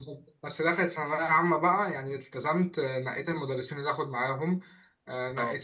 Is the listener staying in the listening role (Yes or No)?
Yes